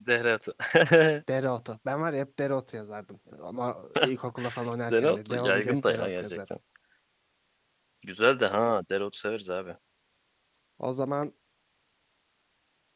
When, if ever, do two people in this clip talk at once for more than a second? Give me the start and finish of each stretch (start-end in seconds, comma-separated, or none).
4.9-6.4